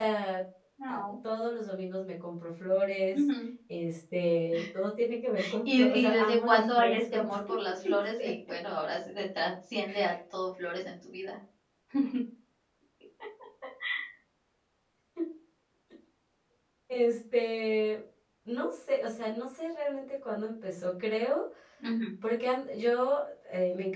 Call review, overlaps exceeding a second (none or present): present